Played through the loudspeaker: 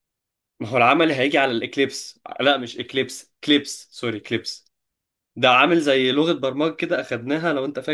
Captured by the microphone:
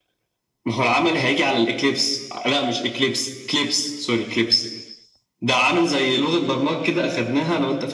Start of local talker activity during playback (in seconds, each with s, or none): none